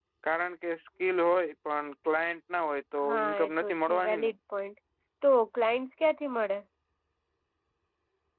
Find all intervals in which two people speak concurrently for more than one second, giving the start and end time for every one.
3.1-4.3

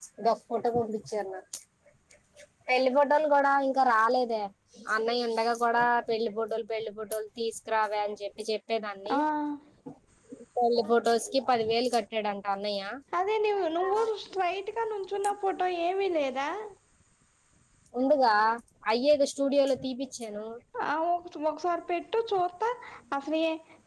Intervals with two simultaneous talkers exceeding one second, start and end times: none

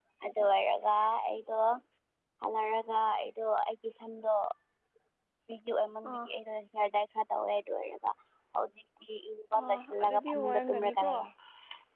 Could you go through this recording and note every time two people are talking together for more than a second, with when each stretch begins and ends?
9.6-11.1

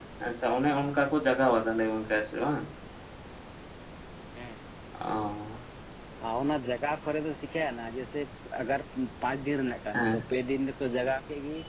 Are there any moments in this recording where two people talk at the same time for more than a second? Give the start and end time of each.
none

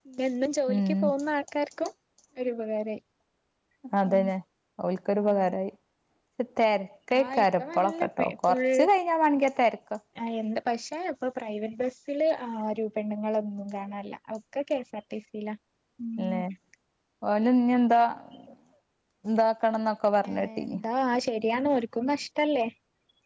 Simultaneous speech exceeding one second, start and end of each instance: 7.2-8.6

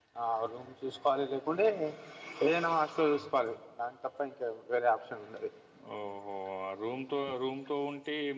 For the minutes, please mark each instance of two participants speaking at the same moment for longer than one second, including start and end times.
none

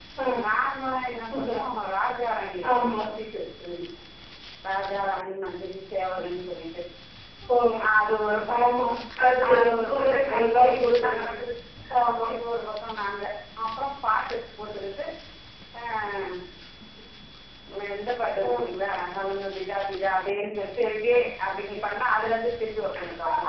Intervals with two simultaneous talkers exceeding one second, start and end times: 9.5-11.3

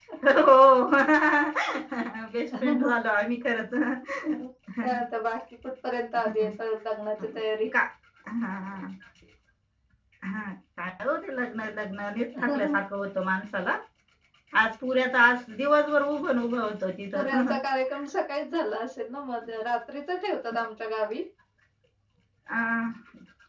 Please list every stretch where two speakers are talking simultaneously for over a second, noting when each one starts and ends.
none

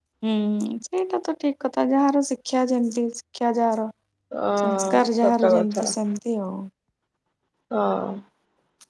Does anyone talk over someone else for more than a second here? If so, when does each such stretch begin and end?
4.6-5.8

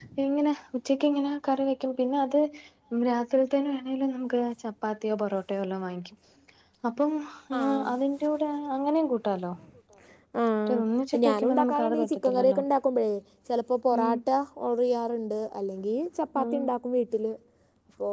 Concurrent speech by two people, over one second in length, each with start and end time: 11.2-12.6

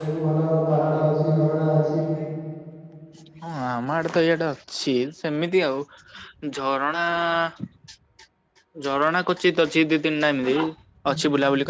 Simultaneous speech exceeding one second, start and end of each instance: none

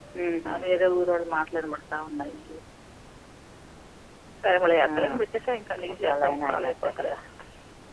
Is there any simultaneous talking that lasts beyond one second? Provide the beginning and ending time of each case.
5.9-7.2

